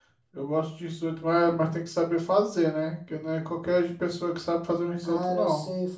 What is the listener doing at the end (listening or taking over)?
taking over